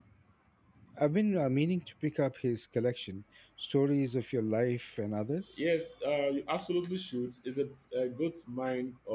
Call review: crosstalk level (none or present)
none